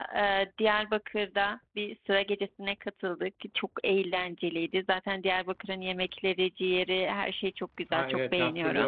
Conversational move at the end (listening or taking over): taking over